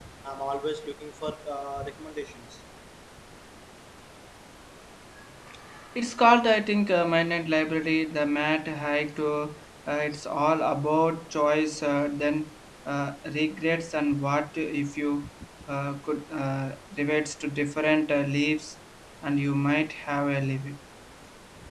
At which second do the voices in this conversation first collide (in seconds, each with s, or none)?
none